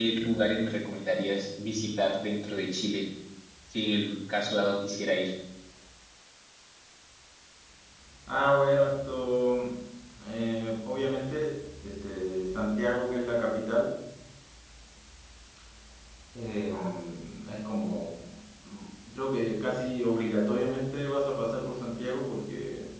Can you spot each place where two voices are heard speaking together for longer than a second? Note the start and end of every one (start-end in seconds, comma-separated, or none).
none